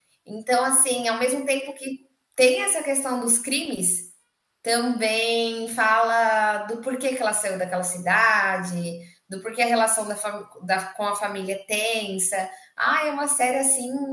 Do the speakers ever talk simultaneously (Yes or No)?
No